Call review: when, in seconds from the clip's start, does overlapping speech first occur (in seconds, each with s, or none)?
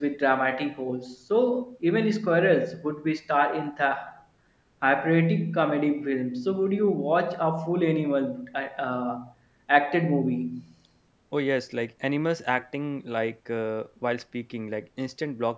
none